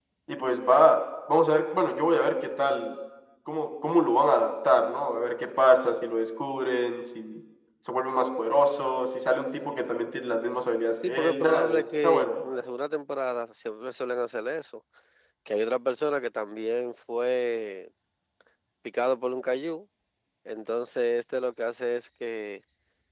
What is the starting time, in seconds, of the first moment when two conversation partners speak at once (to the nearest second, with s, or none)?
11 s